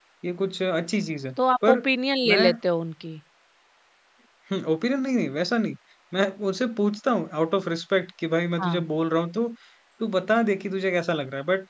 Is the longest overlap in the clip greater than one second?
No

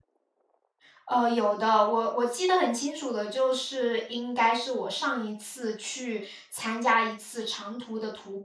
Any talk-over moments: No

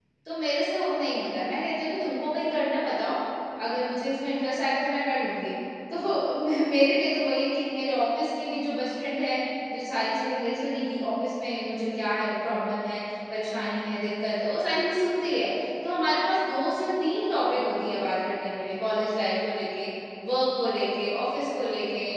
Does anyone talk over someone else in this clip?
No

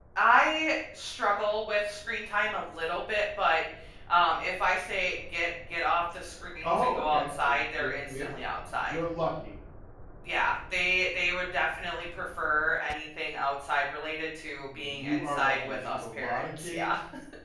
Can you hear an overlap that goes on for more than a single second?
Yes, from 6.6 s

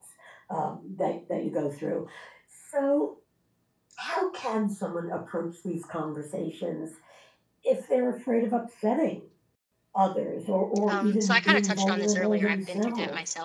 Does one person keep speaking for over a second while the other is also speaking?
Yes, from 10.9 s

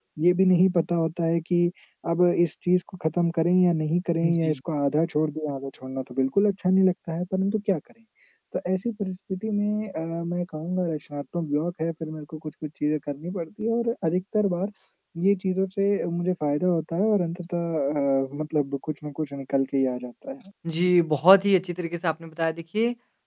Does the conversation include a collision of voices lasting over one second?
No

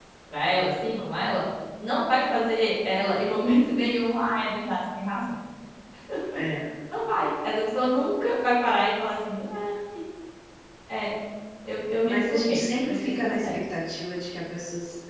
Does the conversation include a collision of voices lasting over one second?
Yes, from 12.0 s

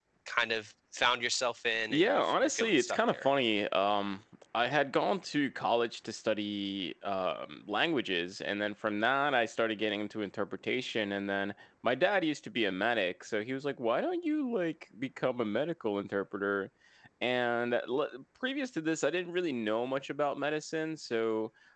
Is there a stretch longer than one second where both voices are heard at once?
Yes, from 1.9 s

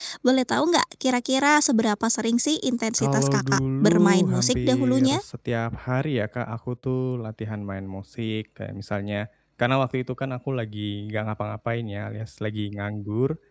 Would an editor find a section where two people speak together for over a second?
Yes, from 3.0 s

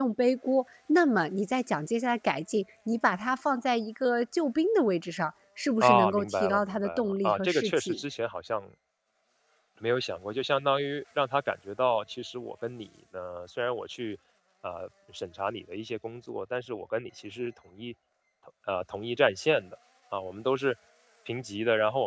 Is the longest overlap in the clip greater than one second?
Yes, from 5.8 s

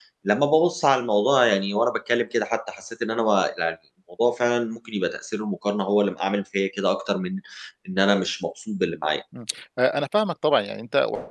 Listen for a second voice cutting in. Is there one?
No

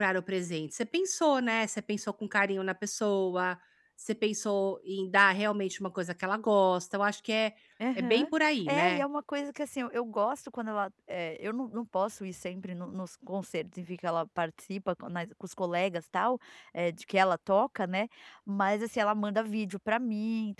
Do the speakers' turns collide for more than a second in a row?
No

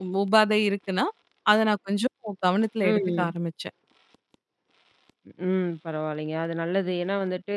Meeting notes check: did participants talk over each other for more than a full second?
No

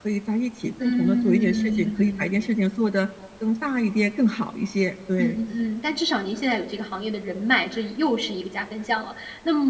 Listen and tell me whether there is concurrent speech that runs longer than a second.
Yes, from 0.8 s

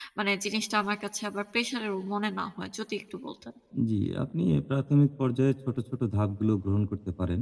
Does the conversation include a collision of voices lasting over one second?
No

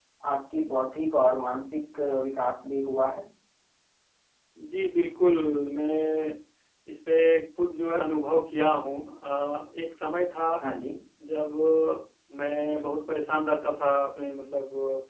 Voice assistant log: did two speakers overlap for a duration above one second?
No

